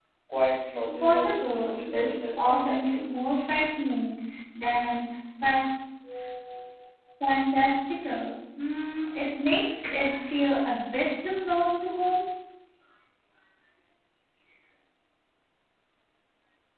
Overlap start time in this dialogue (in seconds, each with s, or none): 1.0 s